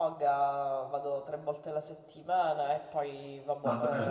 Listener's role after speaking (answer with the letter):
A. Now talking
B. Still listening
B